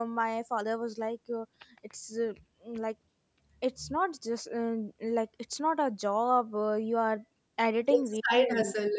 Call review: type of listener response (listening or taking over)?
taking over